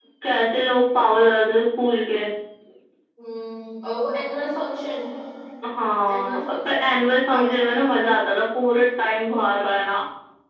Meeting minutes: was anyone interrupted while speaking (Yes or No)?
Yes